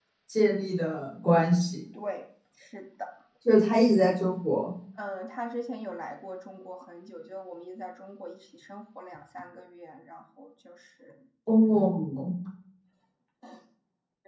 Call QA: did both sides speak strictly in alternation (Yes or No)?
Yes